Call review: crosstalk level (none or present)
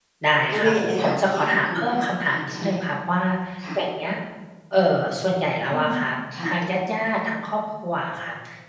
present